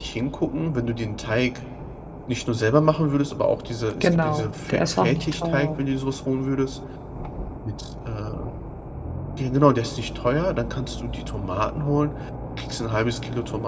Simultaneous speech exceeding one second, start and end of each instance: 4.0-5.8

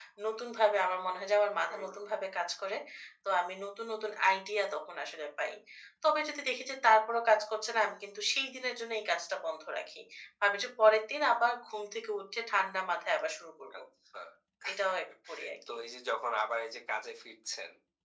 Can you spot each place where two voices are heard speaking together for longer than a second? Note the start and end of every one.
none

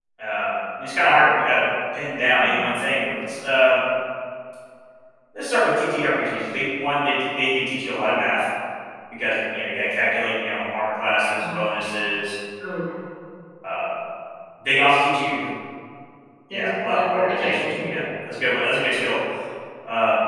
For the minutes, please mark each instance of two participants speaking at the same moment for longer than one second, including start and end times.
16.5-17.8

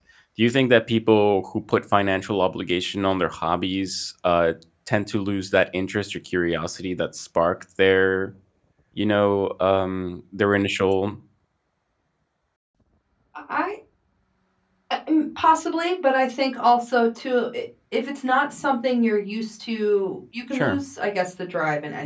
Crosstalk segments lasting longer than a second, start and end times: none

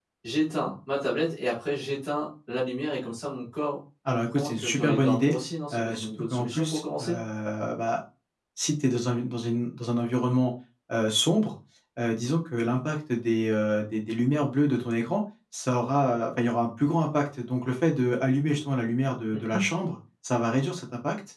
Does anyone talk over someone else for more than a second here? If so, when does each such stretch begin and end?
4.1-5.3, 5.7-7.0

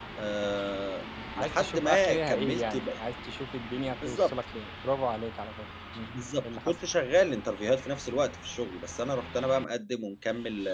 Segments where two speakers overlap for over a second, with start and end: 1.4-2.9

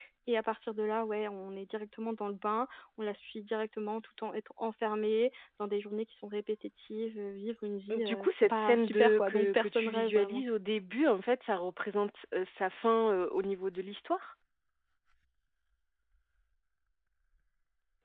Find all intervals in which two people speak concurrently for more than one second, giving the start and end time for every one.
7.9-10.4

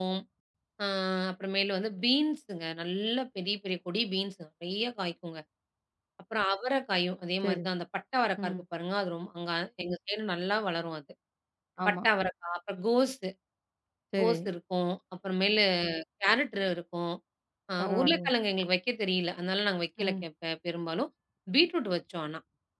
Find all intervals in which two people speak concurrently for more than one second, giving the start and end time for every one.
none

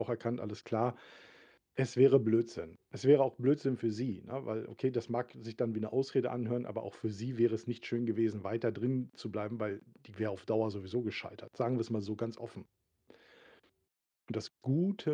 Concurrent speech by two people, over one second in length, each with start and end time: none

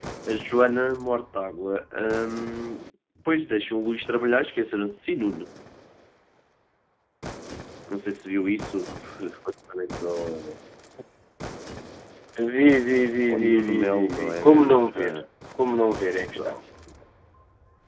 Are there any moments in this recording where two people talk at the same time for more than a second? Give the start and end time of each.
13.3-15.2

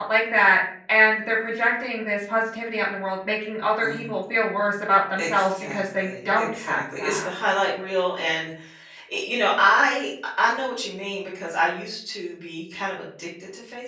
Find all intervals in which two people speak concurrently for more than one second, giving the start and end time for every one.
5.2-7.3

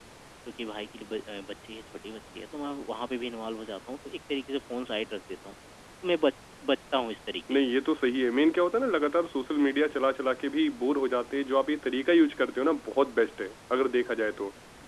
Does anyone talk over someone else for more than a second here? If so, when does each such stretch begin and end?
none

